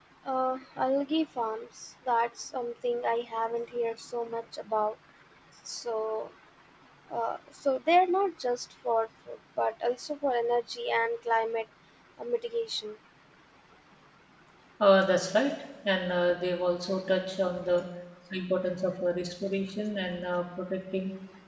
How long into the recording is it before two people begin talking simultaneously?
none

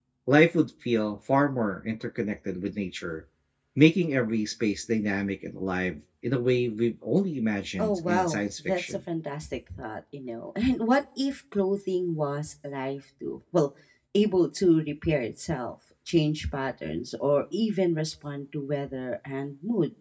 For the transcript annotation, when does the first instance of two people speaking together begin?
8 s

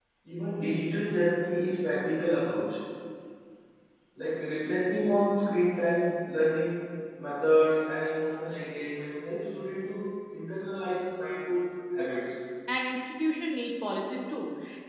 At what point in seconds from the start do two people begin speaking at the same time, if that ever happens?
none

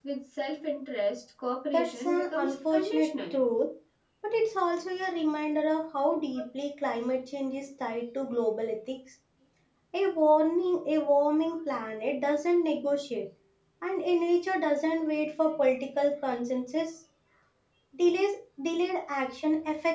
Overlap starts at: 2 s

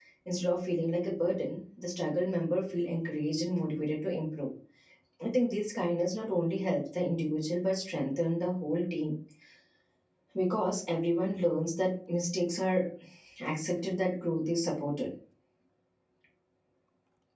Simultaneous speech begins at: none

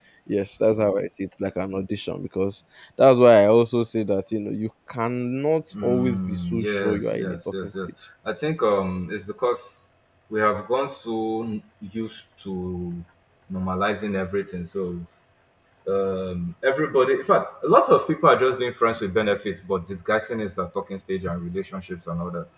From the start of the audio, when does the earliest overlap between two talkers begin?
6 s

